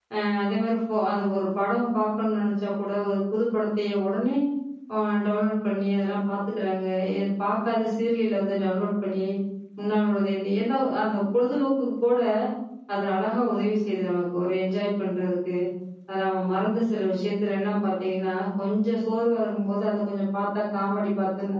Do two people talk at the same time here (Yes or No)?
No